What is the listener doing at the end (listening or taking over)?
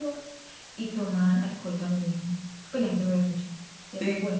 taking over